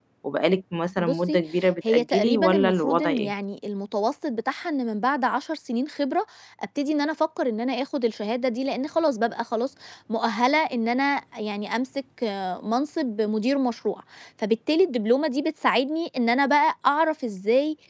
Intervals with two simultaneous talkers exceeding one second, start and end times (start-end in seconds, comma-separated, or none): 1.9-3.3